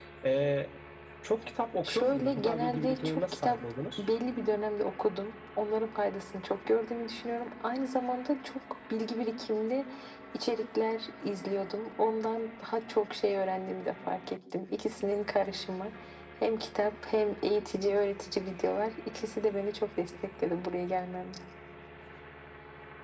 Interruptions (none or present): present